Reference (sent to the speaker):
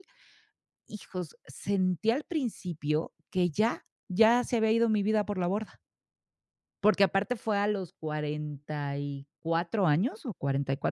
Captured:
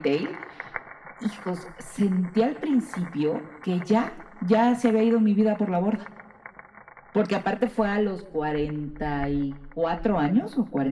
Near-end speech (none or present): none